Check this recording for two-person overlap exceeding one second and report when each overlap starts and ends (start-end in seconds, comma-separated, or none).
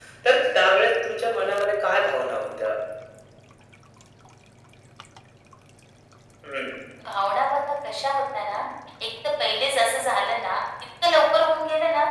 none